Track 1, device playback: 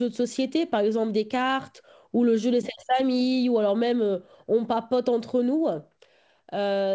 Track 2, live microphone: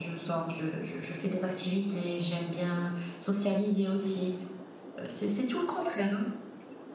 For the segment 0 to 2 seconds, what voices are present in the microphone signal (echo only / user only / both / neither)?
user only